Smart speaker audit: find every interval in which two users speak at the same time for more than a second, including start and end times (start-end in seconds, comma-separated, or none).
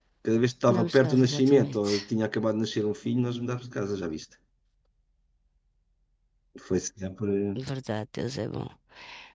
0.7-1.9